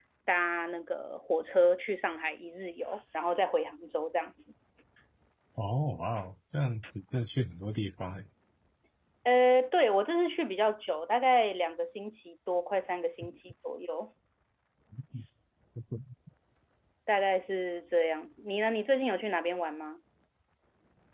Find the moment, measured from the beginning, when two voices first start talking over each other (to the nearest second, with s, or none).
none